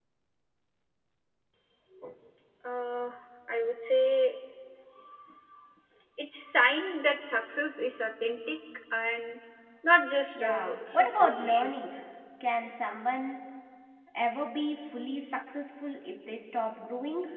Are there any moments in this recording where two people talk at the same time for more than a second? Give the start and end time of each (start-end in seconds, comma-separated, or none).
10.3-11.7